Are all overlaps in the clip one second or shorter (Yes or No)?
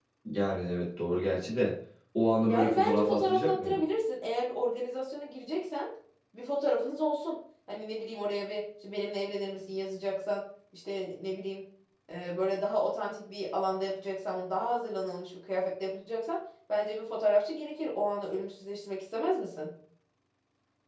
No